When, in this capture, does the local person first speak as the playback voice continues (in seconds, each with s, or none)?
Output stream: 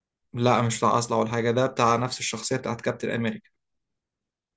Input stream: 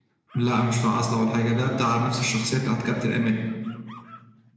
none